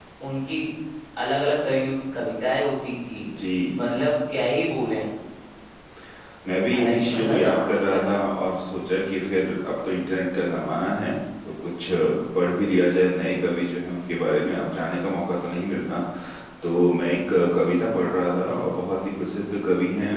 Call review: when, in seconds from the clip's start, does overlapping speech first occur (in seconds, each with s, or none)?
6.8 s